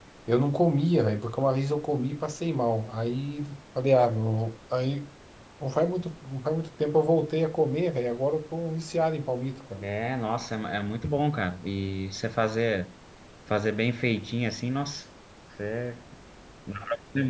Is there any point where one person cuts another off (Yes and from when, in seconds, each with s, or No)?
No